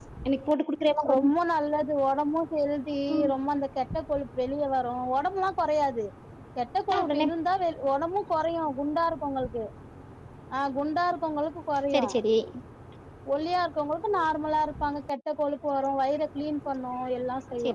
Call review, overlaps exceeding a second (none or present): none